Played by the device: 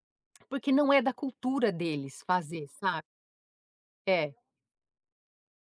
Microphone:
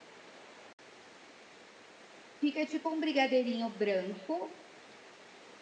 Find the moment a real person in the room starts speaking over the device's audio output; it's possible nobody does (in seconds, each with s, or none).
2.4 s